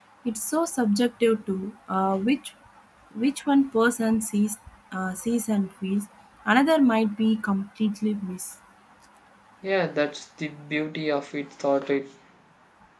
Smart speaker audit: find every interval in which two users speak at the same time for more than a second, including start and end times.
none

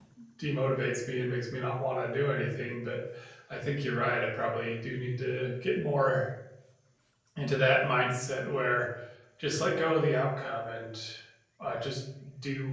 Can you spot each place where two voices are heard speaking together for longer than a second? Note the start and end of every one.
none

